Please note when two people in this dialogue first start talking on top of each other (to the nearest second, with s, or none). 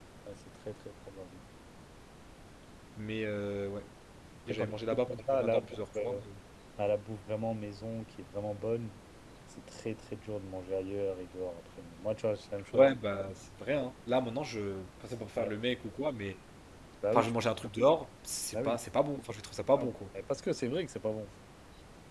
4 s